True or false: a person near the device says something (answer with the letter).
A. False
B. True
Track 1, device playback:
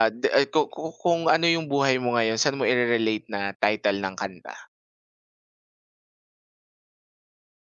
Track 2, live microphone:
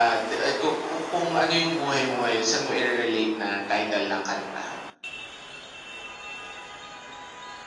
A